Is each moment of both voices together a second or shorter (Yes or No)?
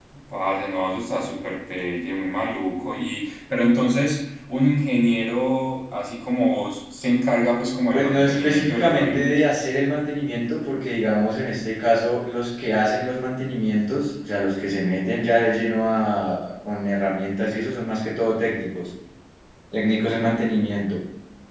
No